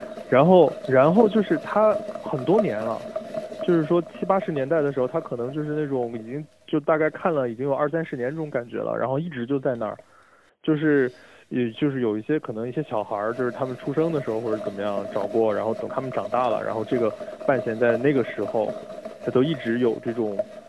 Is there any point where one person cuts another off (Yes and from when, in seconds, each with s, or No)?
No